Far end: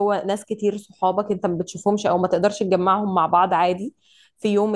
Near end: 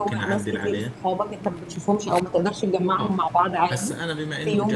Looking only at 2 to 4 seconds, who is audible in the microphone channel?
both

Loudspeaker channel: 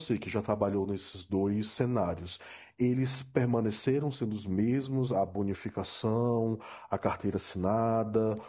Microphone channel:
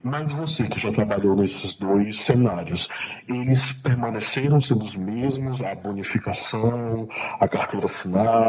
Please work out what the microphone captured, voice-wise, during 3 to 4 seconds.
echo only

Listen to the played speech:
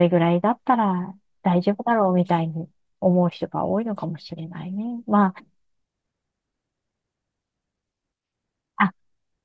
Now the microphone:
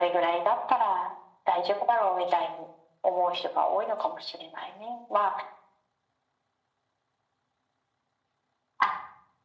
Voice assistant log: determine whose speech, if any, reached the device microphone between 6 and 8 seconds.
neither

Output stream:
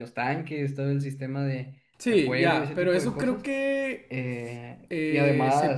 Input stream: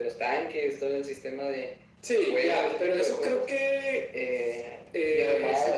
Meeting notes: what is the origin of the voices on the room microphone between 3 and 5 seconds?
echo only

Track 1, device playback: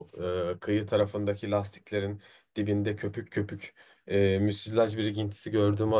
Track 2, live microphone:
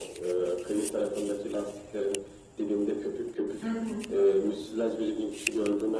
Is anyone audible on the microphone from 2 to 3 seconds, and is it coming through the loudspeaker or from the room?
echo only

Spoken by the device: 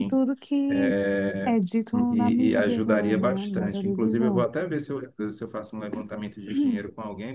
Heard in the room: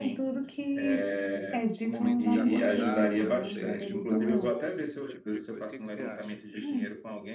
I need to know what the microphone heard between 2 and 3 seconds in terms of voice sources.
both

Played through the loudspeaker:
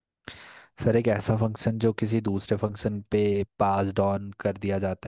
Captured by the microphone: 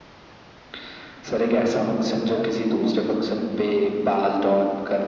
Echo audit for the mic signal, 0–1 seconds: neither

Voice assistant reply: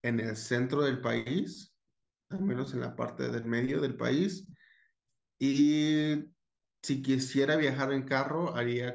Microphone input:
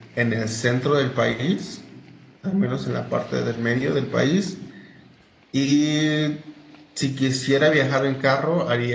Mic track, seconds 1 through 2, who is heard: echo only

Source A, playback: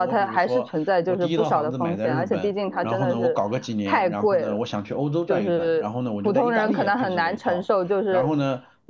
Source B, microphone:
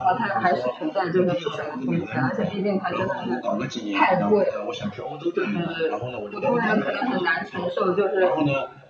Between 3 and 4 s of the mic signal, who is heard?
echo only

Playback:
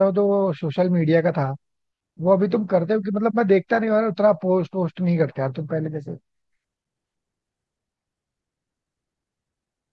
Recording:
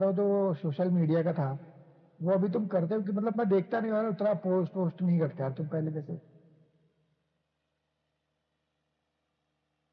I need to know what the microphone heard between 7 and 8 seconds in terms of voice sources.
neither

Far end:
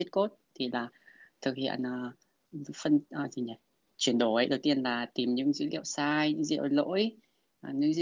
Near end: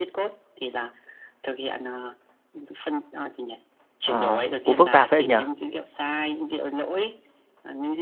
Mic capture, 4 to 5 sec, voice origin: both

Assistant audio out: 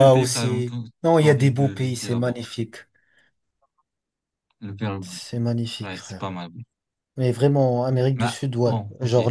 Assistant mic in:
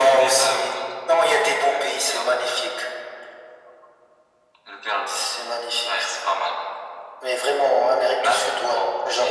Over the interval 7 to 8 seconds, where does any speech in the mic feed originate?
echo only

